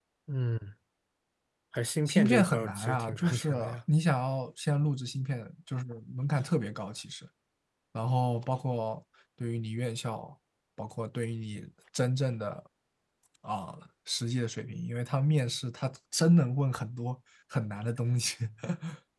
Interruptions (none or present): present